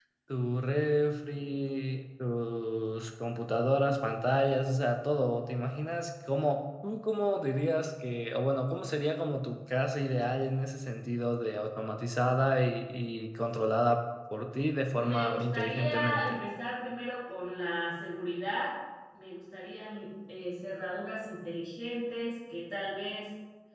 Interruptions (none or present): present